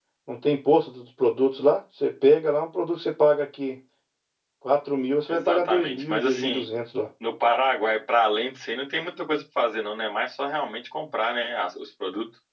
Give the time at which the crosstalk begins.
5.3 s

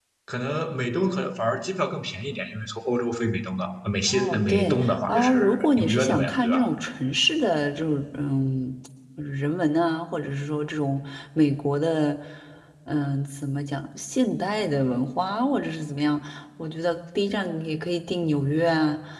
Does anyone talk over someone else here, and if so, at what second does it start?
4.1 s

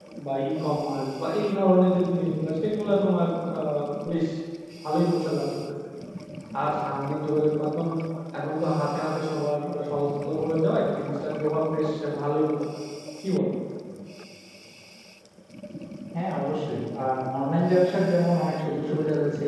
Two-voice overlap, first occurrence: none

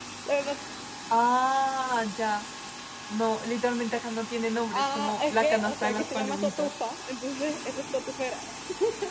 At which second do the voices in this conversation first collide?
4.7 s

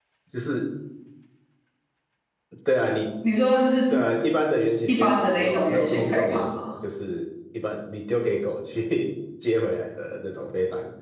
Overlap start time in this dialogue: 4.9 s

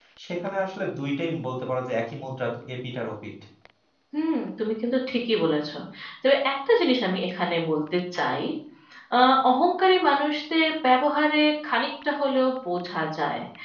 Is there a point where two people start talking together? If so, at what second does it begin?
none

